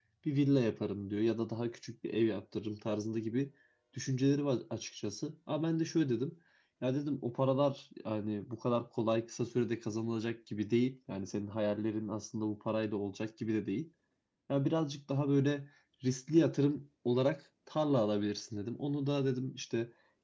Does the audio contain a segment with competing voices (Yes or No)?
No